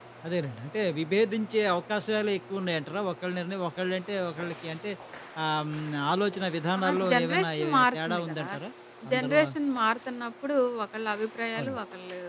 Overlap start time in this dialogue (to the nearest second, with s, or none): 7 s